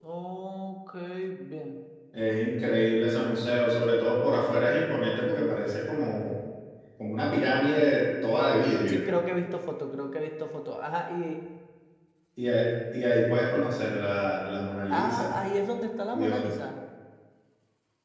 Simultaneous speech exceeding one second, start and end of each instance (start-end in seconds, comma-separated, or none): none